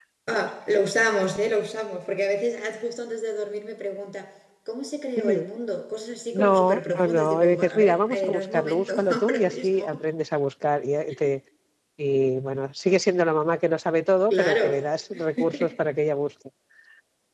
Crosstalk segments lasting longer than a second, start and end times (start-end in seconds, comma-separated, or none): 6.3-9.9